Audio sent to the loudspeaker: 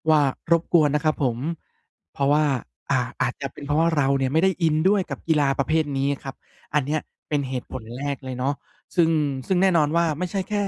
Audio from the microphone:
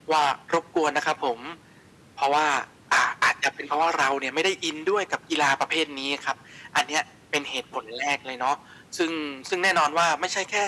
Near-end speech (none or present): none